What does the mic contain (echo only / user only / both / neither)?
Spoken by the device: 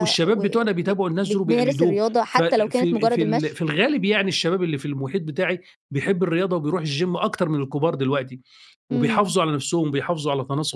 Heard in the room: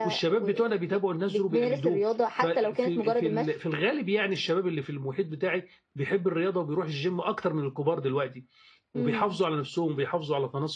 echo only